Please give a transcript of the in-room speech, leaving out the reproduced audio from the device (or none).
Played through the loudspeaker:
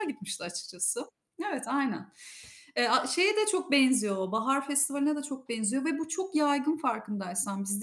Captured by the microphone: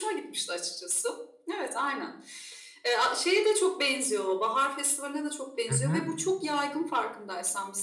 Hı hı.